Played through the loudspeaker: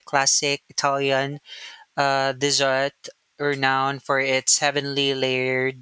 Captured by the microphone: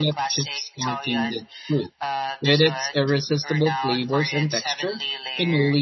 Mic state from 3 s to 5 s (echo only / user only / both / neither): both